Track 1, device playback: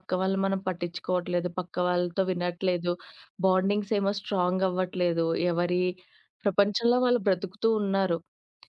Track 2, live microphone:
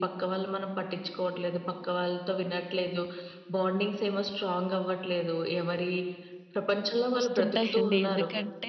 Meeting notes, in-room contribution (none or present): present